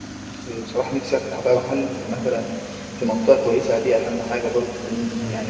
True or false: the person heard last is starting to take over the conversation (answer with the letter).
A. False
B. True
B